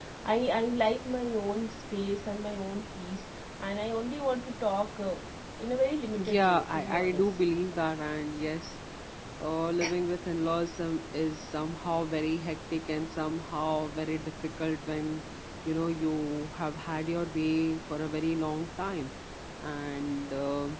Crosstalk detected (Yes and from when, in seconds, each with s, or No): Yes, from 6.2 s